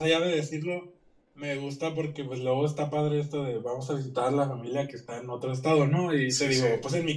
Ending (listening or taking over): listening